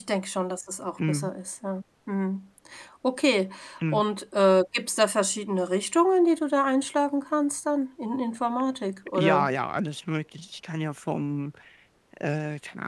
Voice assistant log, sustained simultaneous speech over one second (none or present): none